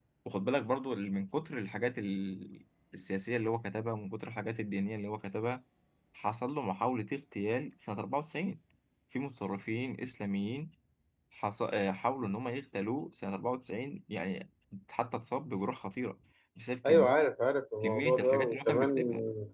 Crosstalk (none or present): present